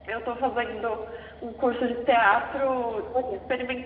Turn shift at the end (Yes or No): No